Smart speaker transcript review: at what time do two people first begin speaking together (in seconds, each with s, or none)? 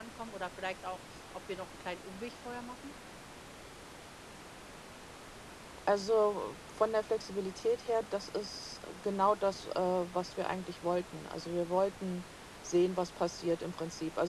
none